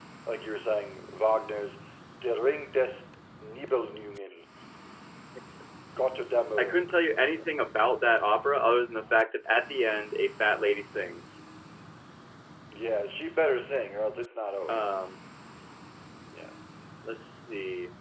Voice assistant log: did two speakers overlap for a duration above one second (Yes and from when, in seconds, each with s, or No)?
No